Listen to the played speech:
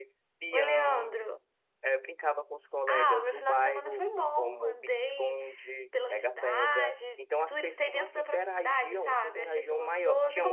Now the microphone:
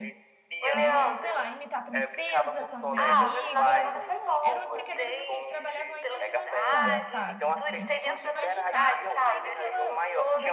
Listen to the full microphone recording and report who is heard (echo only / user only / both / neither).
both